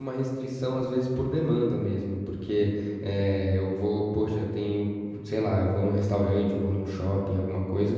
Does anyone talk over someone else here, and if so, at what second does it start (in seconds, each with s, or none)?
none